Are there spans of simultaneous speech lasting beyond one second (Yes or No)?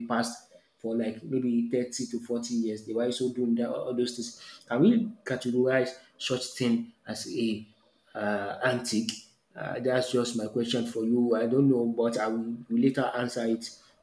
No